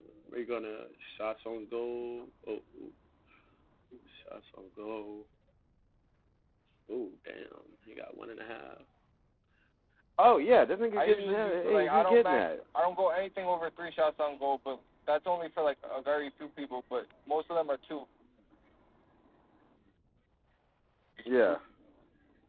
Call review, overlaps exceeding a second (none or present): present